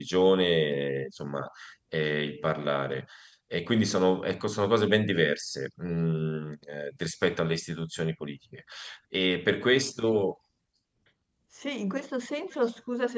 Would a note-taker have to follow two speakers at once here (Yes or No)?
No